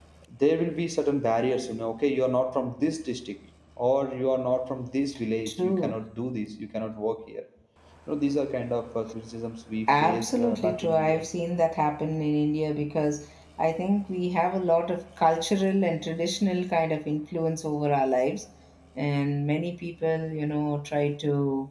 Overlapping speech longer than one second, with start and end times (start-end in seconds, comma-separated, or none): 9.9-11.2